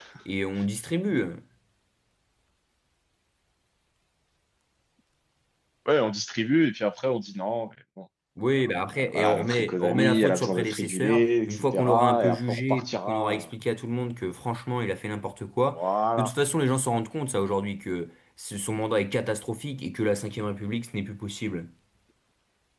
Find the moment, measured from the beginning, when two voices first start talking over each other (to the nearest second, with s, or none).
9 s